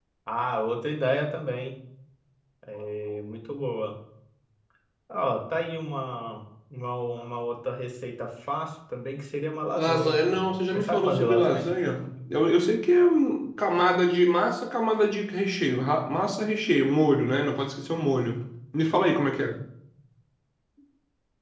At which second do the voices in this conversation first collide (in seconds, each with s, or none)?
9.8 s